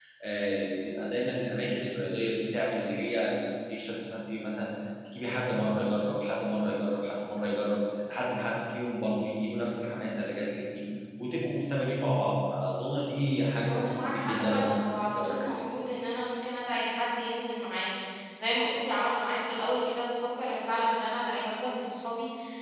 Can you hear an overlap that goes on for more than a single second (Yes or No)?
Yes